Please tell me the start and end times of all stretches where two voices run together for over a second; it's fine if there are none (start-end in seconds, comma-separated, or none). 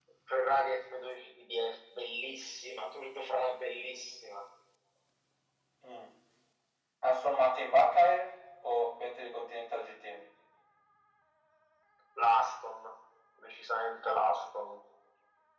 none